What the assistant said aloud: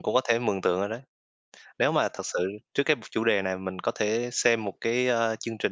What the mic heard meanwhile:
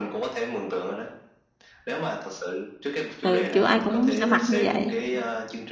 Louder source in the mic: user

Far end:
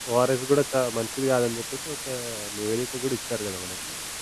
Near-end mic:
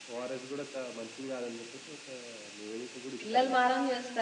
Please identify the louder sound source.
user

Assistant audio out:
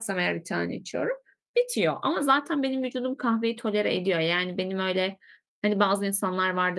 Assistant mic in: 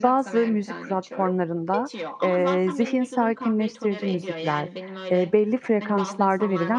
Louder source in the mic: user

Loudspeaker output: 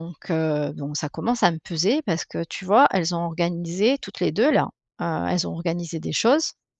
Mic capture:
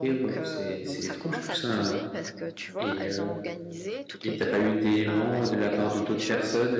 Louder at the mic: user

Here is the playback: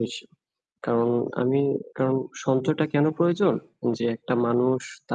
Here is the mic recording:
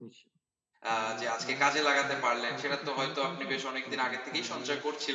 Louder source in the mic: user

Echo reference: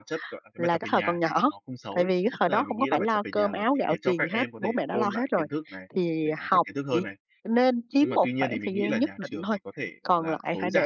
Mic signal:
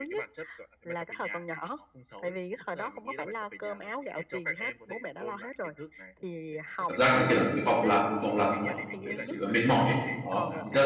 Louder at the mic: user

